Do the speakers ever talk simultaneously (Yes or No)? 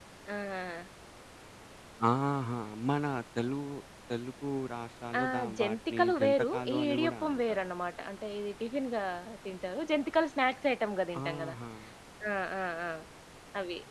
Yes